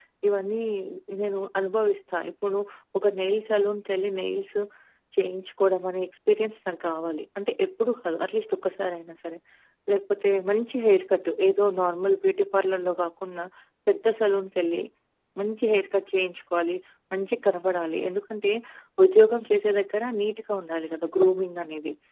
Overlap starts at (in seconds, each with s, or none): none